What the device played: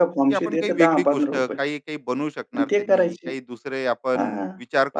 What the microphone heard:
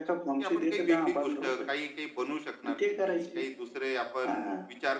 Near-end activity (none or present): none